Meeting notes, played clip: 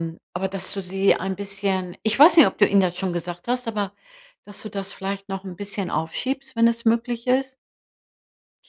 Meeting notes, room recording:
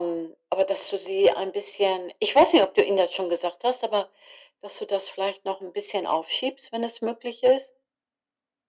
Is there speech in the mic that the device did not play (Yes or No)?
No